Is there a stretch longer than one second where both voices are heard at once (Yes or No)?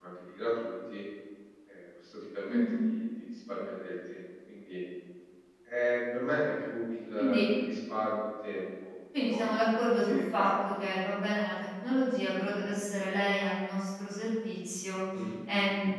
Yes